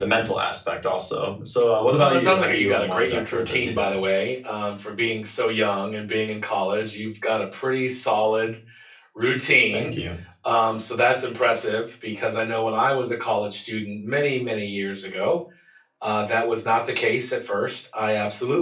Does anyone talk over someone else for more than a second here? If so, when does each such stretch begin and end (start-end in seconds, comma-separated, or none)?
2.0-3.9